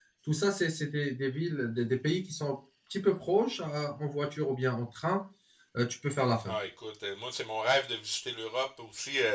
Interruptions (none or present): none